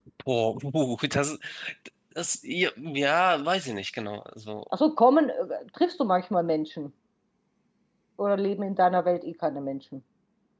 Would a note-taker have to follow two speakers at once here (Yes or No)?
No